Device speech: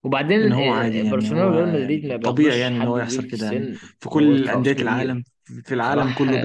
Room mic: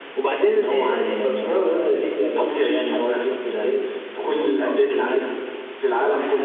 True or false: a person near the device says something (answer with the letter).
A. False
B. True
A